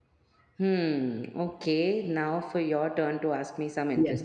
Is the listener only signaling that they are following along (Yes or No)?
No